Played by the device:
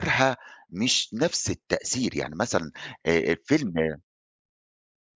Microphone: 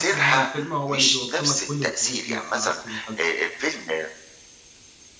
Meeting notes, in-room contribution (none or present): present